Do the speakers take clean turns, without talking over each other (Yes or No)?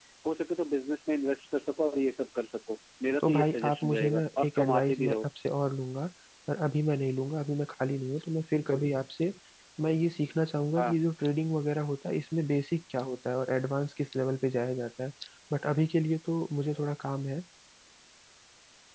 No